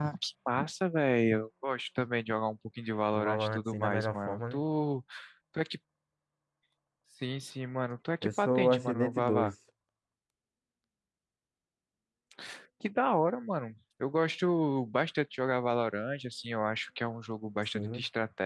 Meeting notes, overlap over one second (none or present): present